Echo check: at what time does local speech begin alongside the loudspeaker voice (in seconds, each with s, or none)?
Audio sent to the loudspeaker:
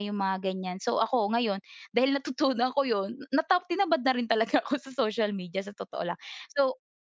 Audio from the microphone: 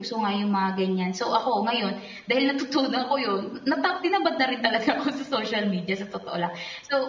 none